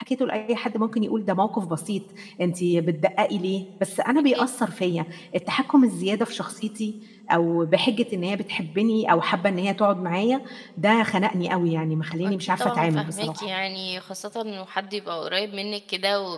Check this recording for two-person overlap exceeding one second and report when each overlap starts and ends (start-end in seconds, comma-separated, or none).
12.2-13.5